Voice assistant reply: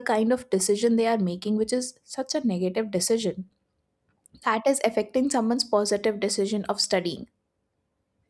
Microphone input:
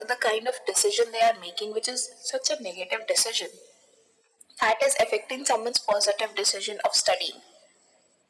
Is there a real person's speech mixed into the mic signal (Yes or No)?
No